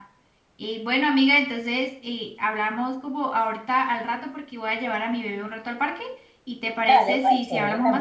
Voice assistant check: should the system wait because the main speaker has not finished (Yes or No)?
No